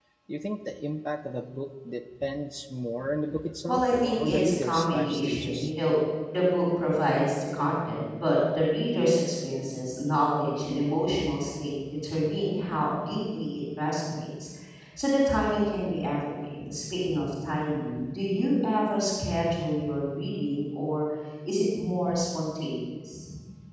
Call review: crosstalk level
present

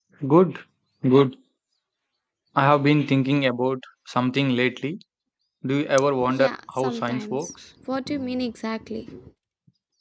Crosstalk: present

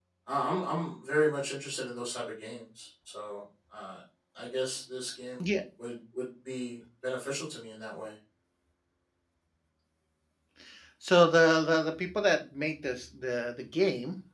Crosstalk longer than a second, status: none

